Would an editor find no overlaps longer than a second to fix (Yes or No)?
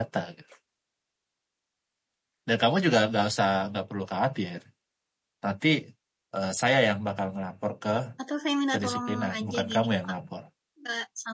No